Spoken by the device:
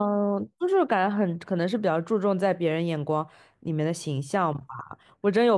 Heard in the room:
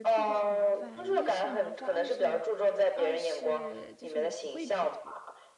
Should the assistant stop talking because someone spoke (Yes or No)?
Yes